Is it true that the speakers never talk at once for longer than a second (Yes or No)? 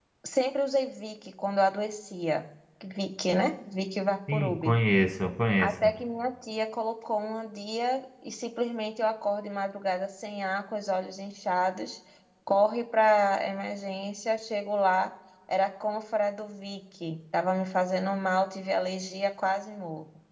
Yes